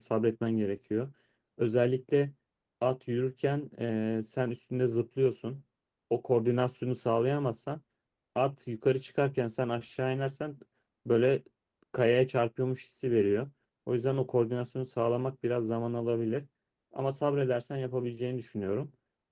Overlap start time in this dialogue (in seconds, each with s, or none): none